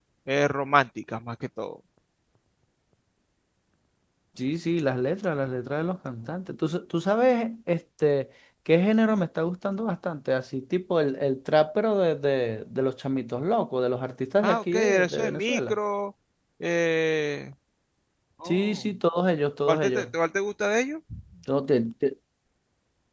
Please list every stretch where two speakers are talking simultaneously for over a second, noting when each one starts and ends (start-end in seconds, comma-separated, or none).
14.4-15.7